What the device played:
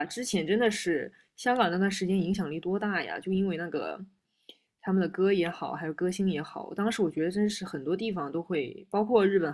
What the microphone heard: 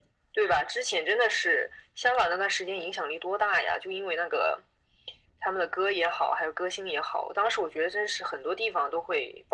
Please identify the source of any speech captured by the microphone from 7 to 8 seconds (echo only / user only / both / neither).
echo only